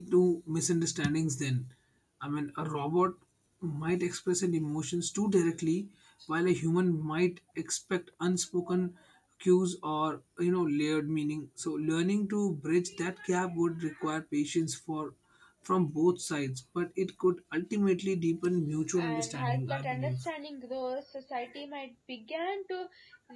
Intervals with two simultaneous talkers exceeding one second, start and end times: 19.0-20.3

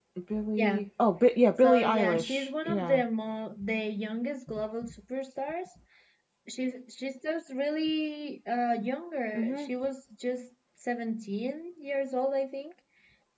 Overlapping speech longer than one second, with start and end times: 1.6-3.0

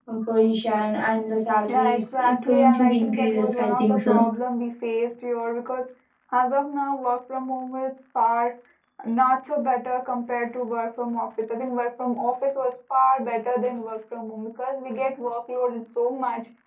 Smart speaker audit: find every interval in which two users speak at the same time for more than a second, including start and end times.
1.7-4.2

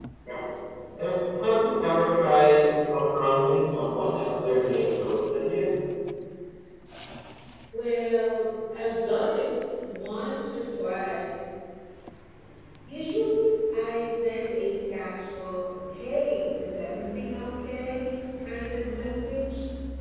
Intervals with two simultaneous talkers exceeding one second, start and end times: none

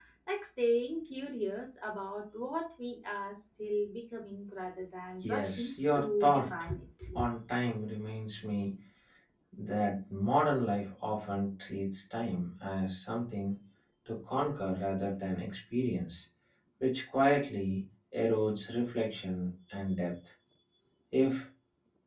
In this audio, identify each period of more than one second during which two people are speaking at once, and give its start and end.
5.3-6.5

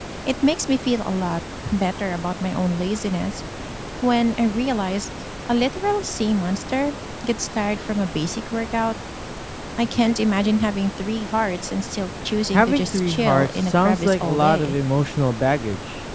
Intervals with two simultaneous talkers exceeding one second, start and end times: 12.5-14.8

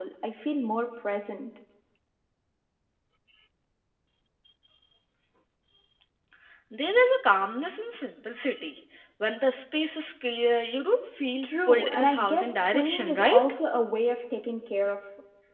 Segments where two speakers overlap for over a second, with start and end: 11.4-13.5

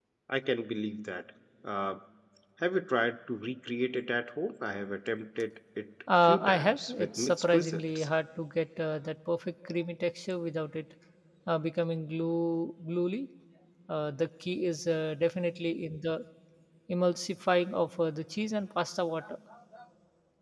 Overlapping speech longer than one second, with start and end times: 6.2-8.1

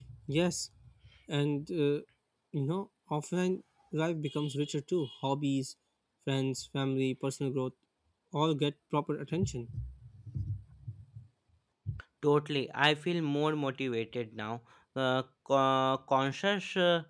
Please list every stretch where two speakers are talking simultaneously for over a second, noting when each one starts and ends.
none

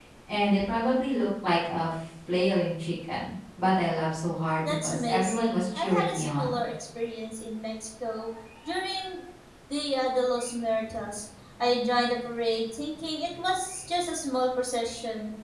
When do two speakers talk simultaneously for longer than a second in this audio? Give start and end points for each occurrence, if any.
4.6-6.6

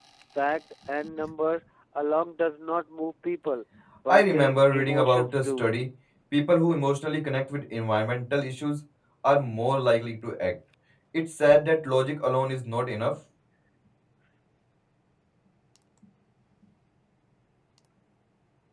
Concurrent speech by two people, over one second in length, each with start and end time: 4.1-5.7

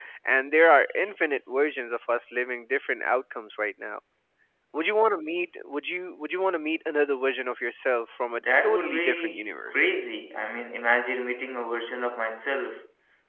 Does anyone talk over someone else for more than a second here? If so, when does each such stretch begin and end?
8.3-9.9

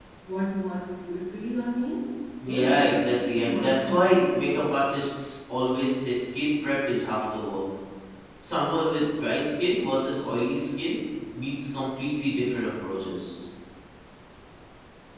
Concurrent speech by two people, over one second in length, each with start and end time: 2.4-4.8

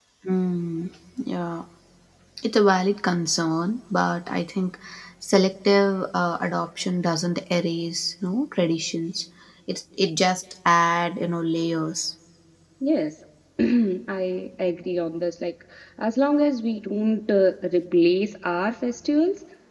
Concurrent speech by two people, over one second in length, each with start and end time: none

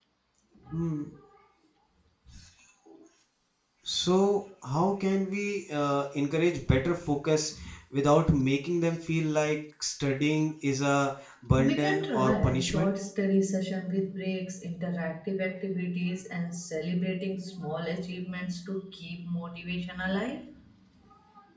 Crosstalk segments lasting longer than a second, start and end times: 11.6-12.9

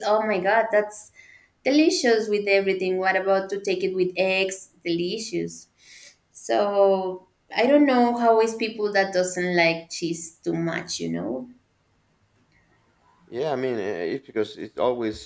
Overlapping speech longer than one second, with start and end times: none

